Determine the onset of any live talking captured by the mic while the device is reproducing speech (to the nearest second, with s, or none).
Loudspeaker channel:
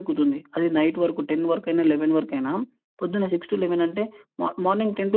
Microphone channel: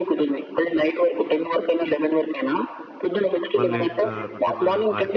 4 s